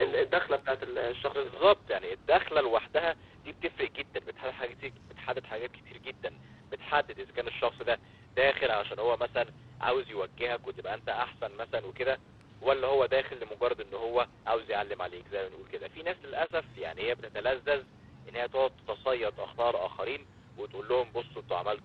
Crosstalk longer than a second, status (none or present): none